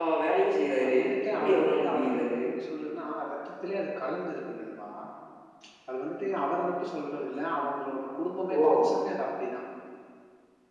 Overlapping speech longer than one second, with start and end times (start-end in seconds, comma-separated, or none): 0.8-2.4